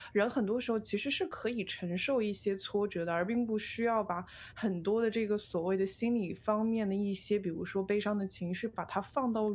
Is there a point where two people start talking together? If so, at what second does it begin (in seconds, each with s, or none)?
none